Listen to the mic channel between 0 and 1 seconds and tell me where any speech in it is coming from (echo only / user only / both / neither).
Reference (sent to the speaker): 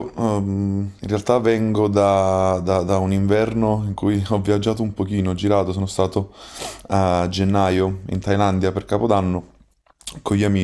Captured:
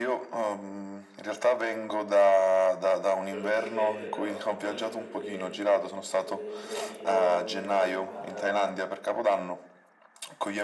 echo only